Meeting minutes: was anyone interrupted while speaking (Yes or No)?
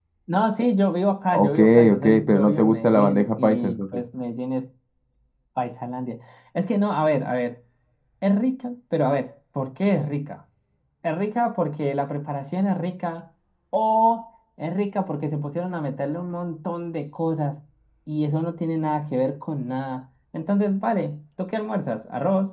Yes